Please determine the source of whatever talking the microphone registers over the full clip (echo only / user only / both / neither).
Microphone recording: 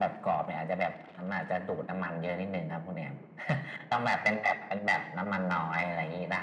echo only